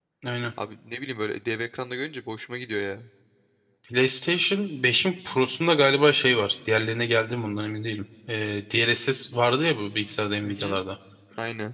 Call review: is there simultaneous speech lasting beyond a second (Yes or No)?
No